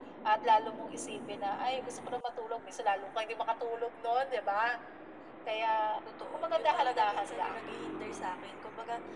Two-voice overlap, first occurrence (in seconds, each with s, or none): 6.3 s